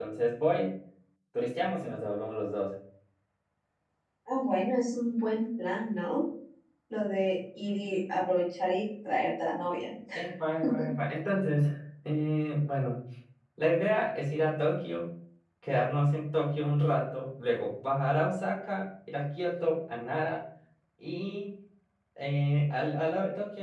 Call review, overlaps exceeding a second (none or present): none